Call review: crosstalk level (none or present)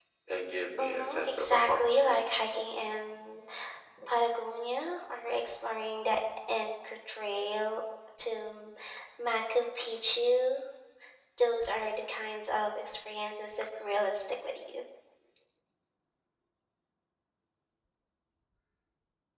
present